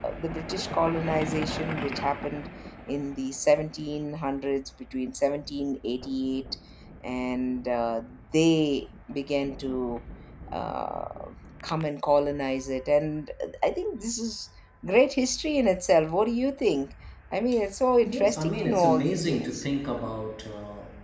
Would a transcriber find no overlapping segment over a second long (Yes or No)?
No